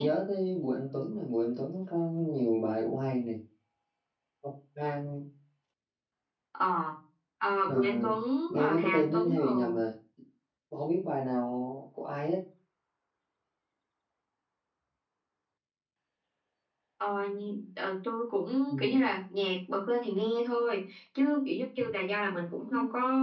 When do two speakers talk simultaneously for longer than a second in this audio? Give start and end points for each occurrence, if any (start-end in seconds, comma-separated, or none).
8.5-9.8